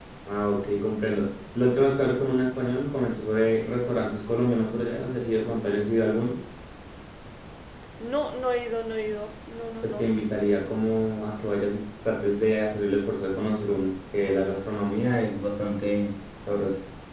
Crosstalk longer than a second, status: none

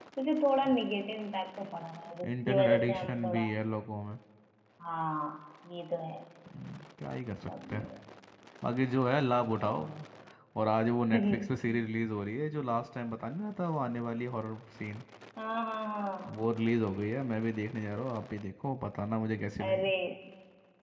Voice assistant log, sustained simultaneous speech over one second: present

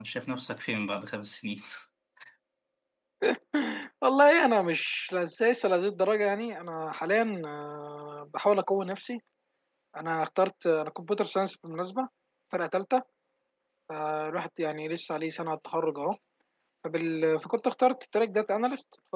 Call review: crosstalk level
none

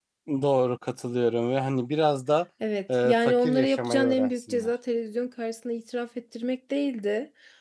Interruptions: present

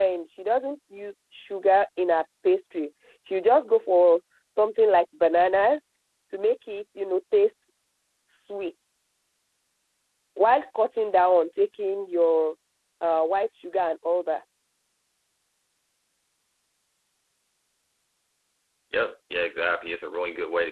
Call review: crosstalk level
none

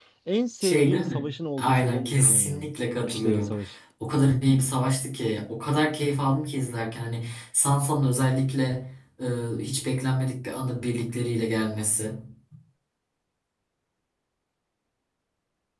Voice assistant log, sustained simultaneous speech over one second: present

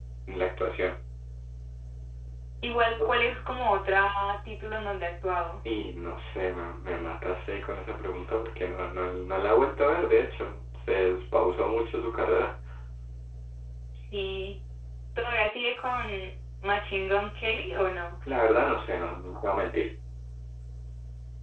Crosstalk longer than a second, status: none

